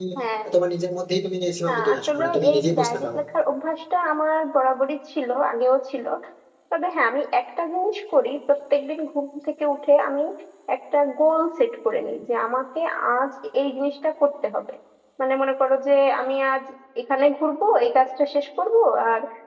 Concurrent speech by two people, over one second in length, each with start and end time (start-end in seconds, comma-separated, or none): 1.7-3.2